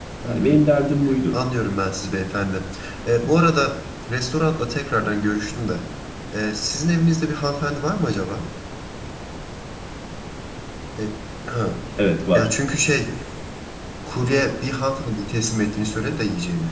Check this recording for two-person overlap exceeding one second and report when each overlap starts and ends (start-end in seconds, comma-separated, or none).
none